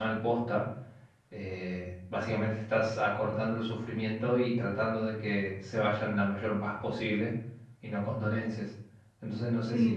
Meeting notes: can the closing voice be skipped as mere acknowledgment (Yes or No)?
No